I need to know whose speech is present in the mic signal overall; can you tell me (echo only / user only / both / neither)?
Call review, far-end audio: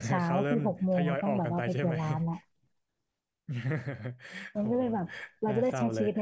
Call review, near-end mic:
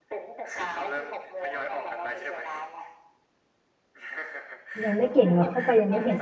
both